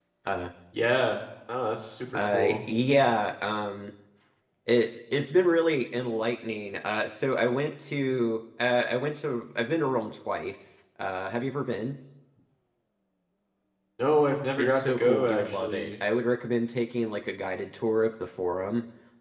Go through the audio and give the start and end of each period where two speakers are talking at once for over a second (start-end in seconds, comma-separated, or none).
14.6-15.9